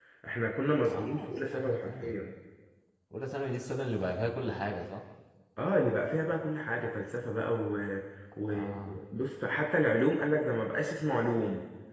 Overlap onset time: 0.9 s

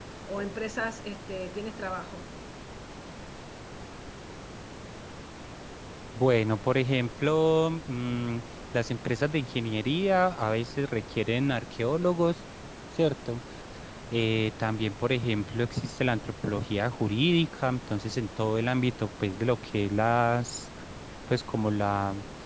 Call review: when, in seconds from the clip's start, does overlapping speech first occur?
none

